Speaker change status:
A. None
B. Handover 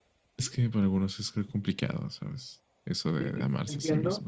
B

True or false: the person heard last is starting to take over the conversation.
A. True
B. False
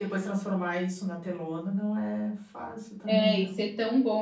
A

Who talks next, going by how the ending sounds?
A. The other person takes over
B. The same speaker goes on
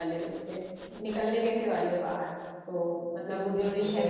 B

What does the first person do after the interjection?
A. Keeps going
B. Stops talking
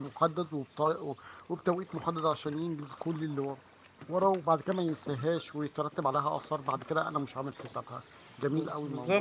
B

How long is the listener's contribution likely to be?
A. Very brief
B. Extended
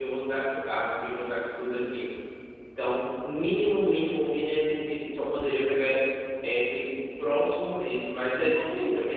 A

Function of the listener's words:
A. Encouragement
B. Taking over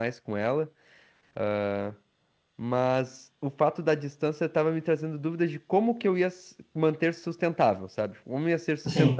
A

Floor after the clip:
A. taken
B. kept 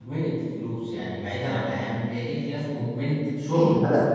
A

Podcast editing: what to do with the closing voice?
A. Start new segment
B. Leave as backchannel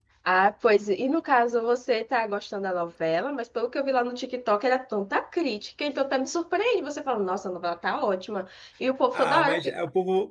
A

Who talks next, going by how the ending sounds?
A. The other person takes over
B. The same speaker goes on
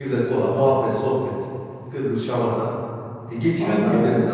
B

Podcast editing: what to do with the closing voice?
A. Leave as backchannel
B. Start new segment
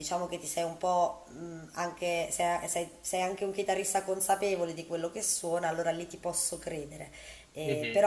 A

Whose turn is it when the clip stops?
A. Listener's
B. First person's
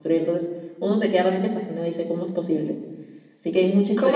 A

